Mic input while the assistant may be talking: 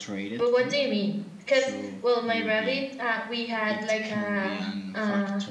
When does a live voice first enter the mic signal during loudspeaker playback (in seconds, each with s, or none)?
0.4 s